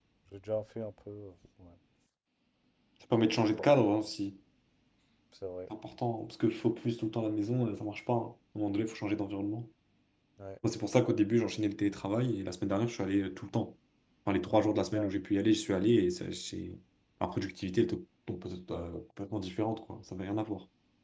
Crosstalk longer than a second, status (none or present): none